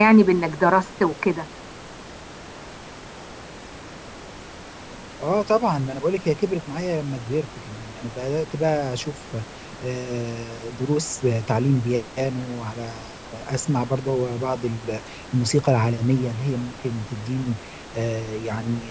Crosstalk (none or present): none